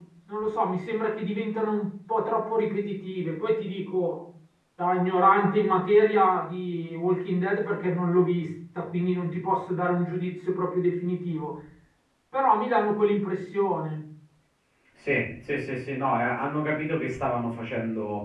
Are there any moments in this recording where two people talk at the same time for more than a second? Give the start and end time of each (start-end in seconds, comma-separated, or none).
none